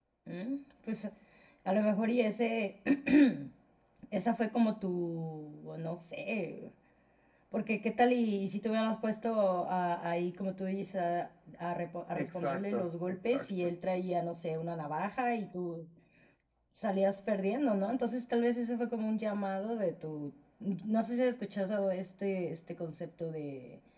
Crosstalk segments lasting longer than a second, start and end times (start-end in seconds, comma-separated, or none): 12.2-13.7